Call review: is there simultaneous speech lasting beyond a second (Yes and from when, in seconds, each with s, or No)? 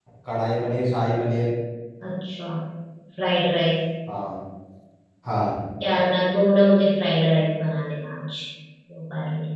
No